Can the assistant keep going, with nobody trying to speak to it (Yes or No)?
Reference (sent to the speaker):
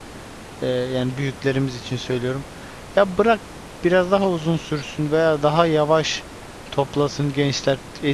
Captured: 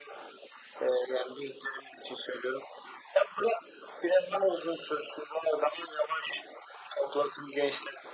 Yes